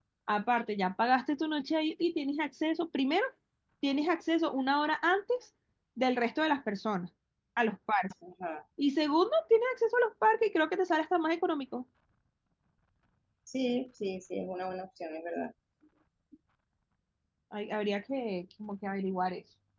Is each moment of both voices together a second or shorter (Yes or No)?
Yes